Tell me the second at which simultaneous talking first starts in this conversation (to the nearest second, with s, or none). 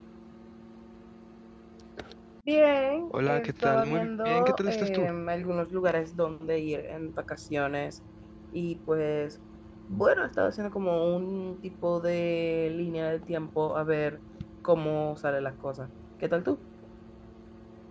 3 s